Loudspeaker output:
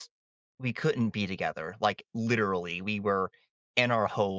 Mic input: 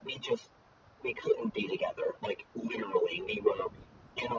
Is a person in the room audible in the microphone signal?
No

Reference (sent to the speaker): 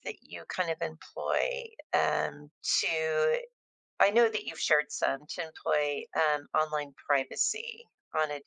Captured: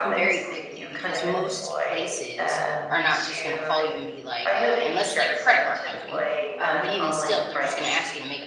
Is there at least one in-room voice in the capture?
Yes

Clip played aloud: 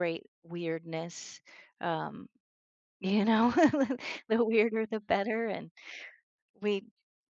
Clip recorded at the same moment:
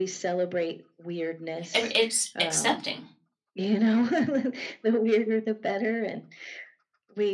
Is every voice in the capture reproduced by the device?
No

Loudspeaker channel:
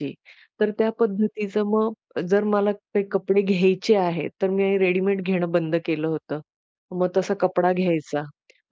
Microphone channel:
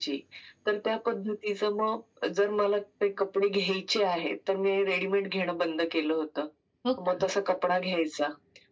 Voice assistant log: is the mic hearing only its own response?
No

